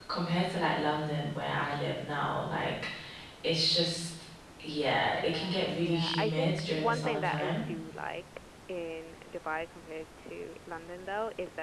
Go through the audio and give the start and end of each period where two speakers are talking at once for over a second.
5.2-7.6

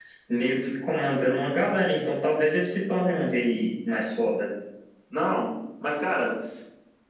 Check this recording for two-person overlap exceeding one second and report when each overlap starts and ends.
none

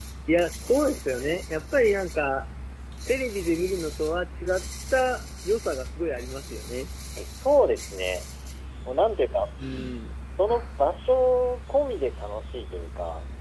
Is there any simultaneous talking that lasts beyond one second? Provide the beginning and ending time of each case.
none

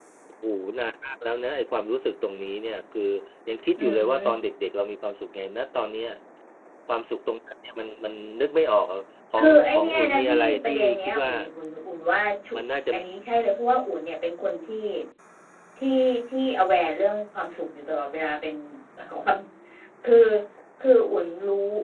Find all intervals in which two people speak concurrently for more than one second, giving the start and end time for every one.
9.4-11.3

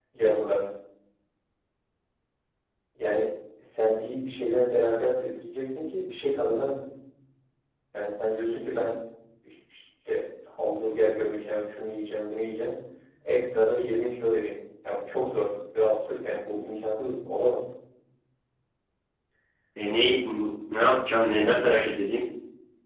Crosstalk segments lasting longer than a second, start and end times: none

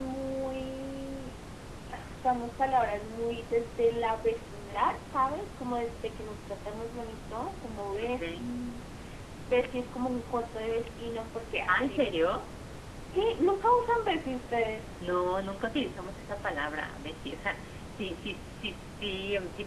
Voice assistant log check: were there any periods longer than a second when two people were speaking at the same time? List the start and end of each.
none

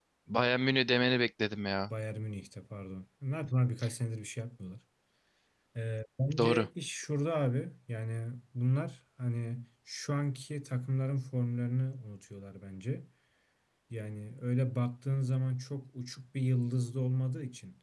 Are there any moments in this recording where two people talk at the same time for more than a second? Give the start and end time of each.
none

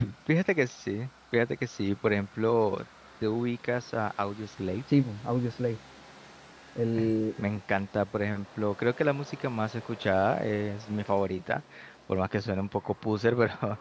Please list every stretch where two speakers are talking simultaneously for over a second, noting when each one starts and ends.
none

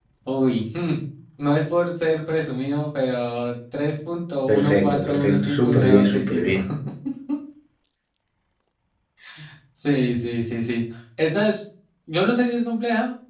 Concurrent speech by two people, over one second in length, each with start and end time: 4.5-6.6

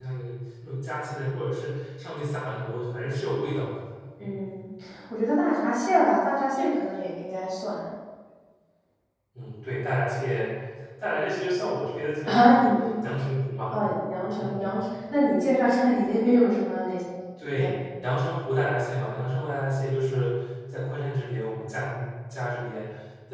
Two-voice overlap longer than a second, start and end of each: none

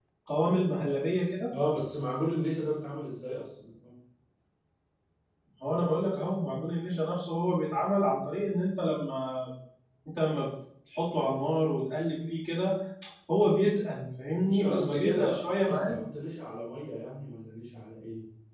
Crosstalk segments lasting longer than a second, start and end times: 14.4-16.0

